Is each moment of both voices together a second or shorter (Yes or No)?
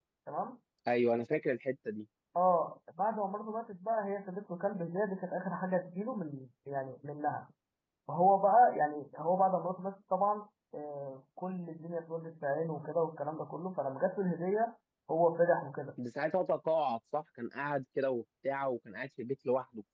Yes